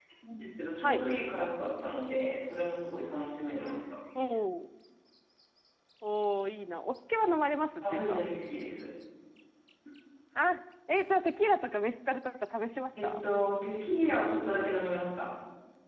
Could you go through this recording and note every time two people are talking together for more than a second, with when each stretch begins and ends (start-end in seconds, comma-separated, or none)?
none